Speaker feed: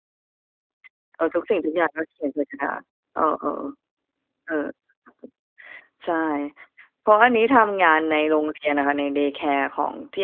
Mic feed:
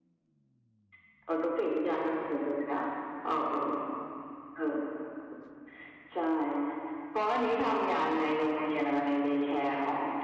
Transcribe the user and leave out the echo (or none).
none